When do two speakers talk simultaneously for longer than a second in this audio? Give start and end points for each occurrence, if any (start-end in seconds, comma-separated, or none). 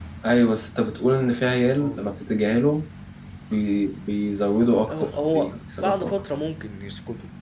4.9-6.2